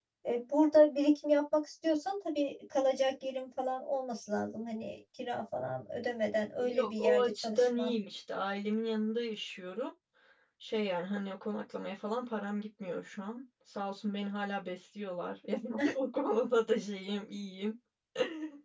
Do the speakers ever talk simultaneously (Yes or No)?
Yes